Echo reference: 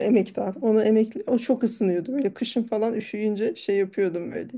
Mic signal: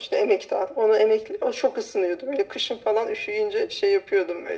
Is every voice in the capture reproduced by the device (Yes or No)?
Yes